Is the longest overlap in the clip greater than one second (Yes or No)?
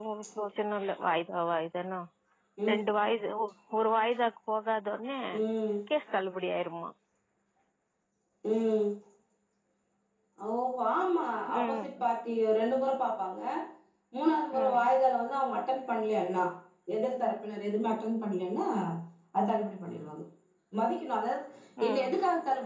No